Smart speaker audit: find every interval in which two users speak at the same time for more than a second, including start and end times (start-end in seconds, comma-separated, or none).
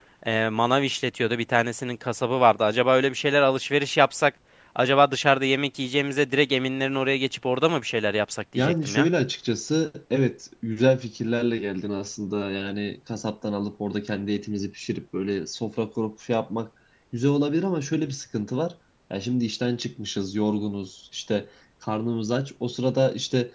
none